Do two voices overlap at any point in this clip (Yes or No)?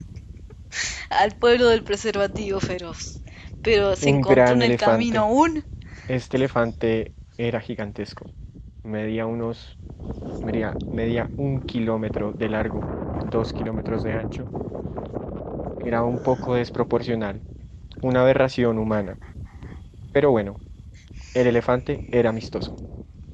Yes